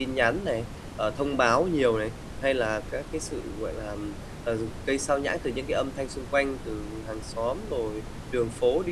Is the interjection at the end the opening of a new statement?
No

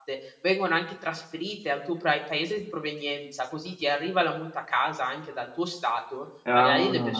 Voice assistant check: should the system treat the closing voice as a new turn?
No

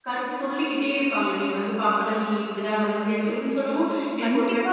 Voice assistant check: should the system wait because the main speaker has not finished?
No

